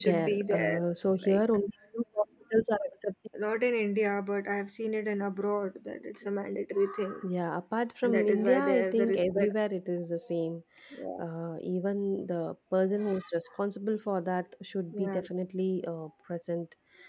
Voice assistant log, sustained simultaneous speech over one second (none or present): present